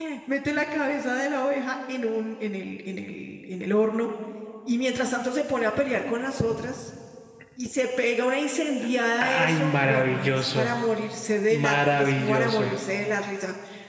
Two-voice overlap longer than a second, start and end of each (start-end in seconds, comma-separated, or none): 9.2-10.7, 11.5-12.7